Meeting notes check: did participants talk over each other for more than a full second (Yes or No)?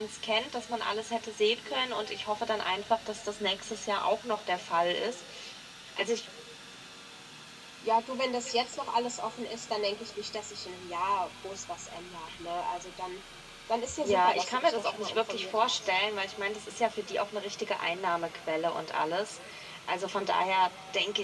Yes